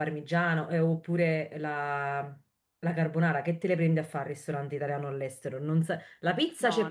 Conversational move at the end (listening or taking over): listening